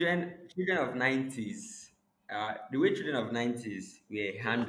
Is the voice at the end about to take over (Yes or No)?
No